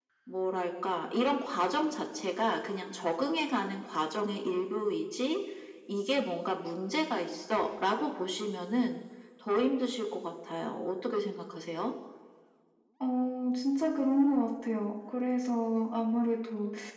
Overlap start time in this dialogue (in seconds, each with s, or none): none